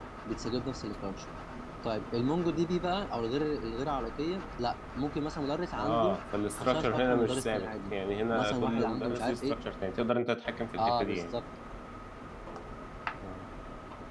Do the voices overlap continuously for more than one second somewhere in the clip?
Yes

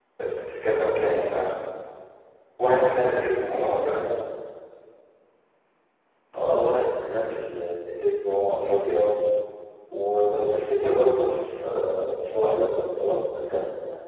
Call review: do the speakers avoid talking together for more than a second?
Yes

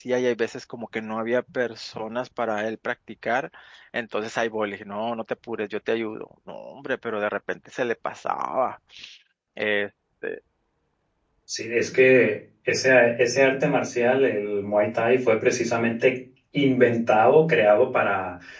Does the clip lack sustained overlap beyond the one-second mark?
Yes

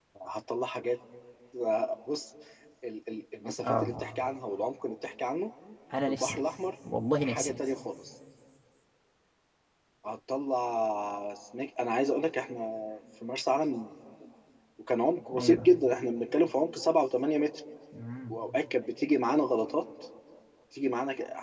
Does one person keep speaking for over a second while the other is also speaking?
No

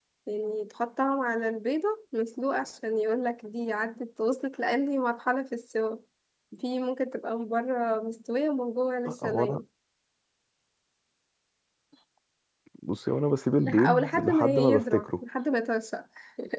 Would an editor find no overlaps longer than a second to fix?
No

